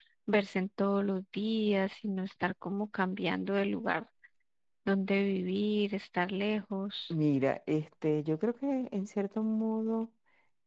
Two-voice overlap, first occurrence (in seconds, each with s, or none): none